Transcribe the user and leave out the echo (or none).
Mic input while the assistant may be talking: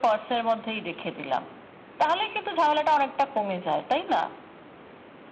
none